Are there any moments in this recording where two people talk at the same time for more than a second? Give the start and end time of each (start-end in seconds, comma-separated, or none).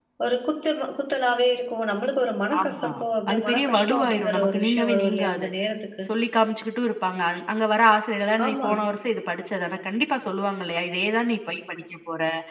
3.3-5.5